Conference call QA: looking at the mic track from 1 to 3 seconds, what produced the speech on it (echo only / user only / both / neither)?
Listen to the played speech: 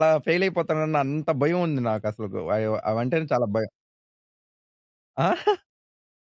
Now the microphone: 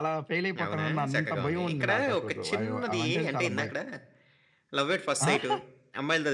both